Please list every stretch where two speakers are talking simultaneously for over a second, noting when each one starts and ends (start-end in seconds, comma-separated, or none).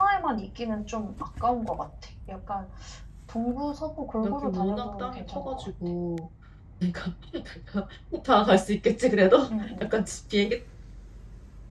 4.2-5.7